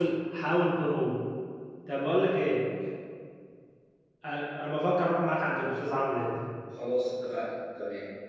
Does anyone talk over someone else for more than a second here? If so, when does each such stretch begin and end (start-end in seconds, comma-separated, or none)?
none